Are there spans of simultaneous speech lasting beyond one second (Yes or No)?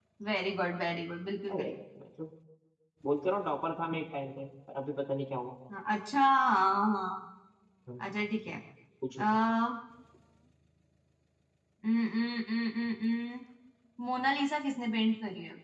No